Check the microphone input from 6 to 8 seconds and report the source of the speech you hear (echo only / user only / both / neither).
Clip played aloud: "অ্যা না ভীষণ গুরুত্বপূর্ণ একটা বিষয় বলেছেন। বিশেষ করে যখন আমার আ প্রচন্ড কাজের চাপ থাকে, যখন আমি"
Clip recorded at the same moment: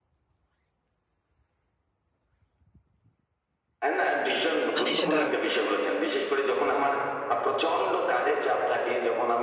echo only